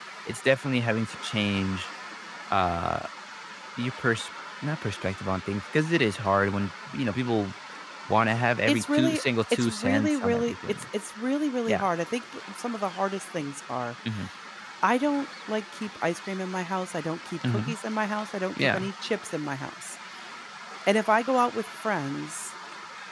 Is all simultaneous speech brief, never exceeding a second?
No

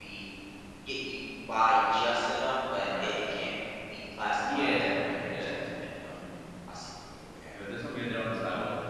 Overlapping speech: Yes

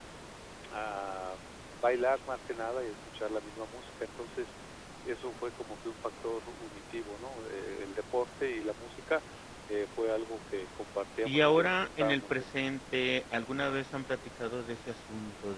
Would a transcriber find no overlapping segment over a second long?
No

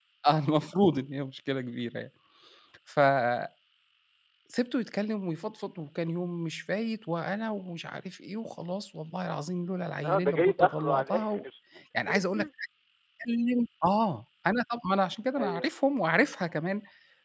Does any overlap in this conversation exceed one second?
Yes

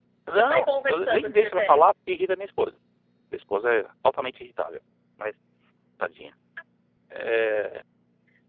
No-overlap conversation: No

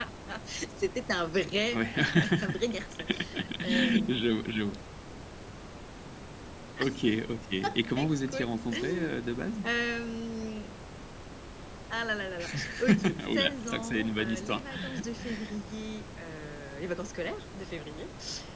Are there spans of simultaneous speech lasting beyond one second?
Yes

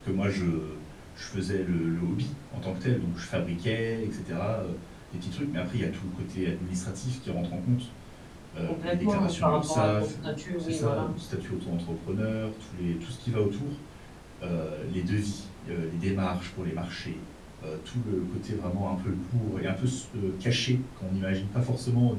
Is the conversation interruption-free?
No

